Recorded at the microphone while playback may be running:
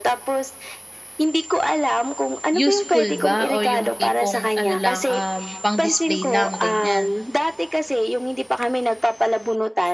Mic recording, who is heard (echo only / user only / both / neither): both